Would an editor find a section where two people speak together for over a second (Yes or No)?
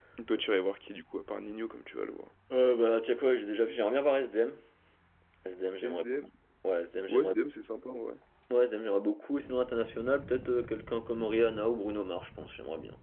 No